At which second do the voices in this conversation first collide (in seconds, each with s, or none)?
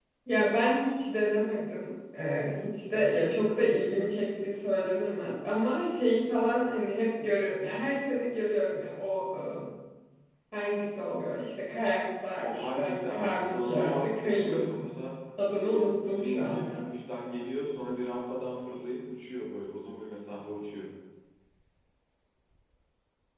12.4 s